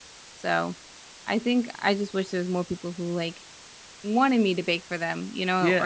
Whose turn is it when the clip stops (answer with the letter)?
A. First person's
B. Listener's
B